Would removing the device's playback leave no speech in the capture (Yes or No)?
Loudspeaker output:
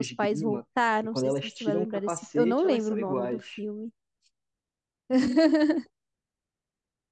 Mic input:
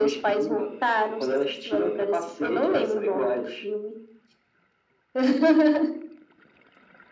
Yes